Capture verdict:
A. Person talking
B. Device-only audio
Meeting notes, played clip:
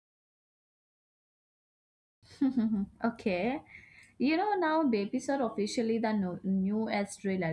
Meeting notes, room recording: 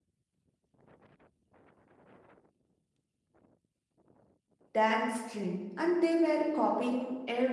A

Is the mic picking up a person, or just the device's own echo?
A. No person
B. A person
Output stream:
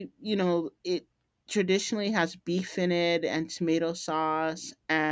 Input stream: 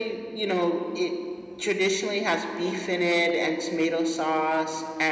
A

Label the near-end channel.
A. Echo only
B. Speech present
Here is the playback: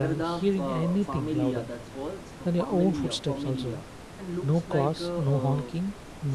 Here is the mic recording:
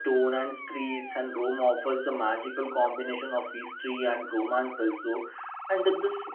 B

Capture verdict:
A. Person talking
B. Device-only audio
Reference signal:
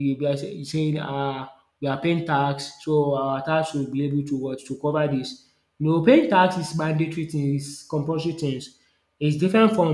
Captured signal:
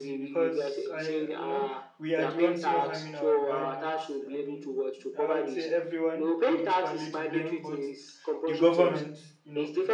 A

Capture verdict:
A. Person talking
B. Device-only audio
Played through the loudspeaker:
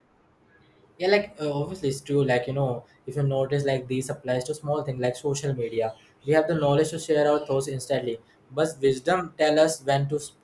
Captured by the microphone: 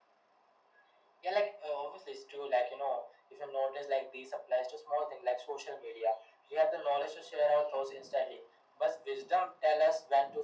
B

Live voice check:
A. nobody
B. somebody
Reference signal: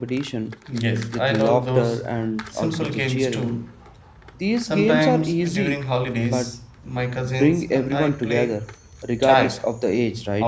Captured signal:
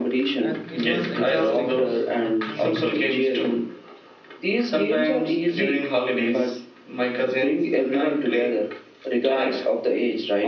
B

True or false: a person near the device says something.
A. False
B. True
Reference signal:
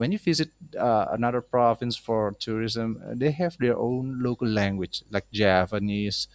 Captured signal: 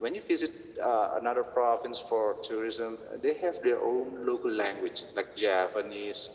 A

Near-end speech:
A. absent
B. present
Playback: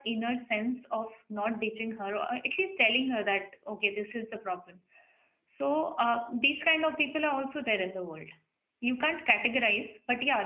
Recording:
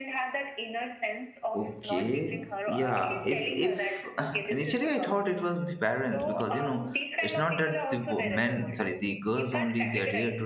B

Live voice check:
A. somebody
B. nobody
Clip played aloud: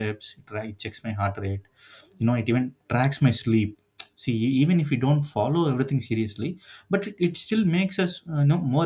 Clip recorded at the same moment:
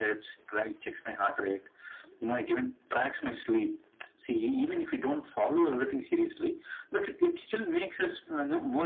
B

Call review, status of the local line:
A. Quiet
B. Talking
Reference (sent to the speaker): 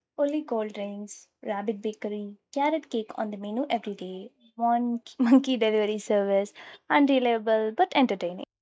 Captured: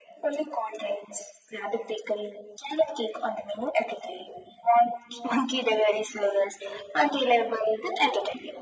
A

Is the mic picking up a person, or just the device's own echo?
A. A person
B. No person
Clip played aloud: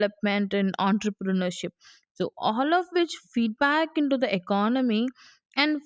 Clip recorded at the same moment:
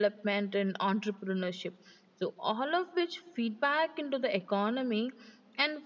B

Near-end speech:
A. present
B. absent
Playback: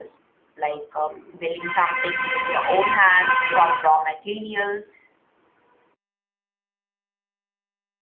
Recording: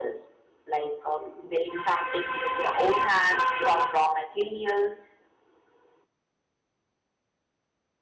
B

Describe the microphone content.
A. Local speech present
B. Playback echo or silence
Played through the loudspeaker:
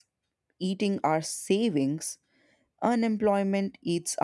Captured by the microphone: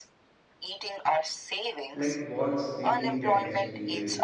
A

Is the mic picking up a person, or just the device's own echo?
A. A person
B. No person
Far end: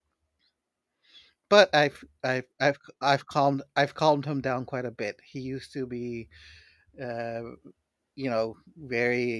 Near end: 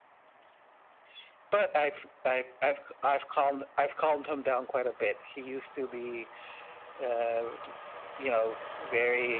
B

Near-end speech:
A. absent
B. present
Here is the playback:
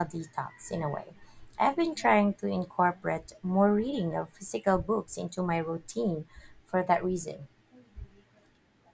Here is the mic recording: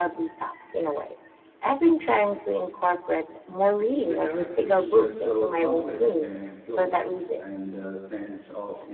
B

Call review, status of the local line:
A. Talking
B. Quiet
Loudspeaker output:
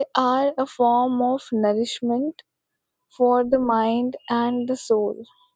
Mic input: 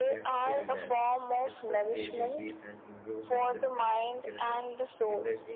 A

